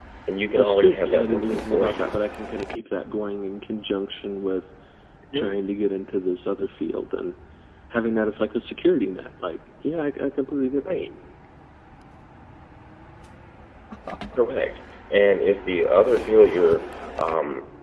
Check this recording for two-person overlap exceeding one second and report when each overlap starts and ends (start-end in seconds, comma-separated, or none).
0.6-2.1